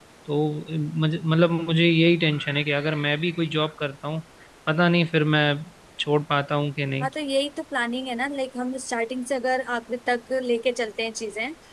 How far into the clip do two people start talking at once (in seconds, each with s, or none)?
none